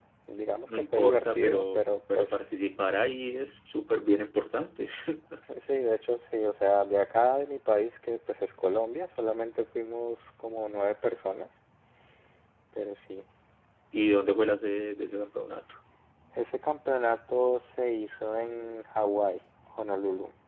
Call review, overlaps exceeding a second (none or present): present